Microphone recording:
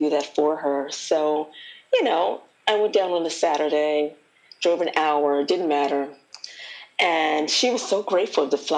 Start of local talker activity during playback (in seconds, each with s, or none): none